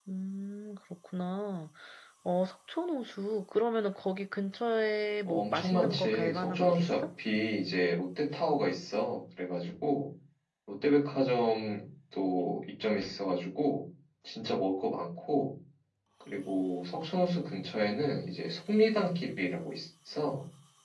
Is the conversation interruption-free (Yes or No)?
No